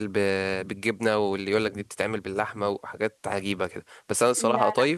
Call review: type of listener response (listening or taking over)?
listening